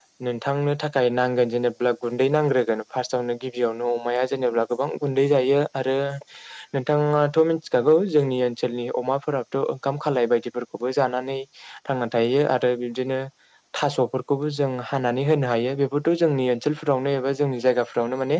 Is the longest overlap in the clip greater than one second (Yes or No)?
No